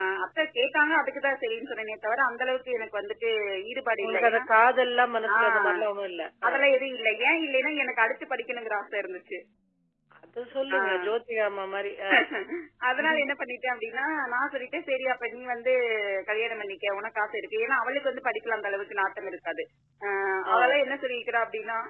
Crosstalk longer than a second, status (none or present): none